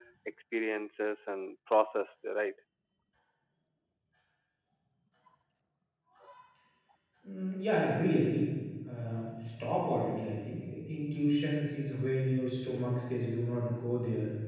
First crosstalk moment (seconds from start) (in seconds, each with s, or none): none